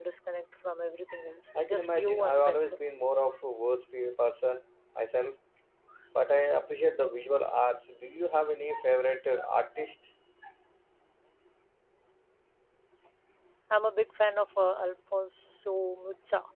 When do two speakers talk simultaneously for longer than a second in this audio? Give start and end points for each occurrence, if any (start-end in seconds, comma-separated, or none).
1.6-2.8